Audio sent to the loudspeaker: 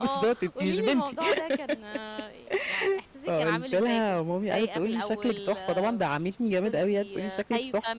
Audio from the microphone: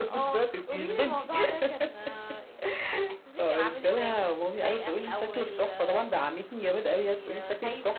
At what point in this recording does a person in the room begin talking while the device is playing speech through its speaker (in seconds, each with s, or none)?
none